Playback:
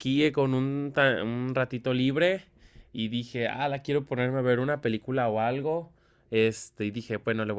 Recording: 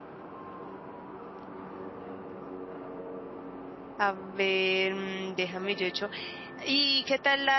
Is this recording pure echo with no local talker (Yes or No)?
No